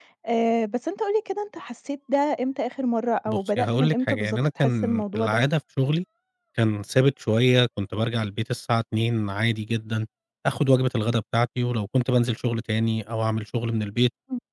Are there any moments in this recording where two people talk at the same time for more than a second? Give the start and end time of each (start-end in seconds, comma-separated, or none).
3.3-5.4